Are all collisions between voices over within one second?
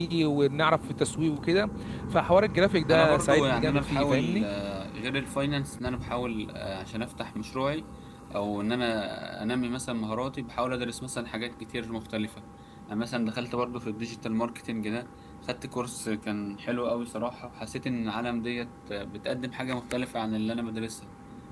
No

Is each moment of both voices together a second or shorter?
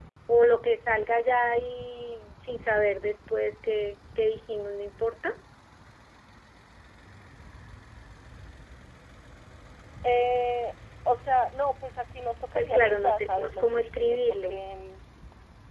No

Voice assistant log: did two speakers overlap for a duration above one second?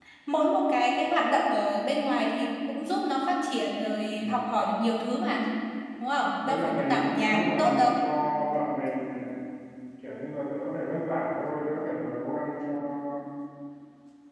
Yes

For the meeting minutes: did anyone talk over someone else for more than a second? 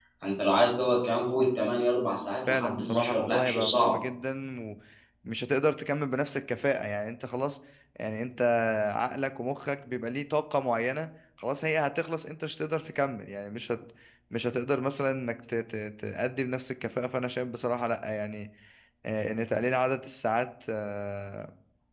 Yes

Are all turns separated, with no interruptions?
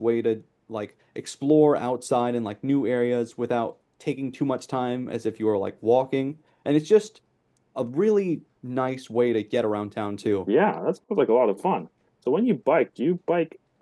Yes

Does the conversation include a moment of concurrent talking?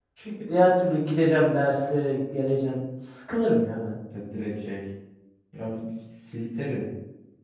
No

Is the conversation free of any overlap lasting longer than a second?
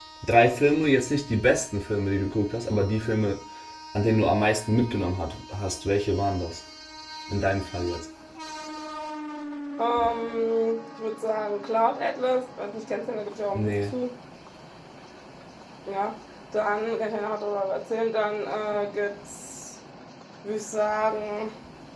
Yes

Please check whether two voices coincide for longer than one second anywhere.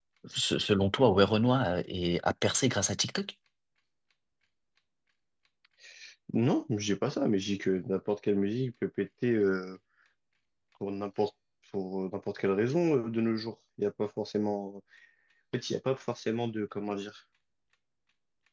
No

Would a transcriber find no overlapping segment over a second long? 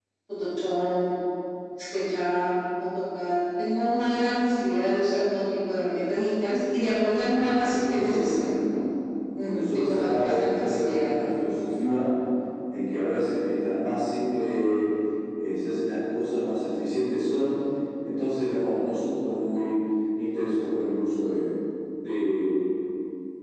No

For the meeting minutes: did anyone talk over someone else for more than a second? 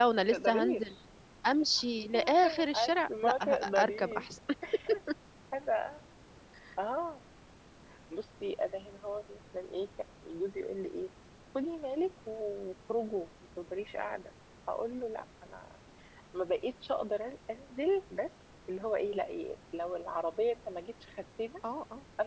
Yes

